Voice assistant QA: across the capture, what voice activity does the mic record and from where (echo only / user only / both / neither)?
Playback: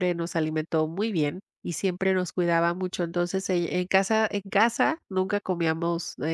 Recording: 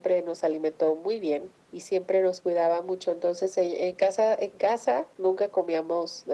echo only